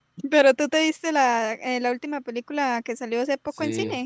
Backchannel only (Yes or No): No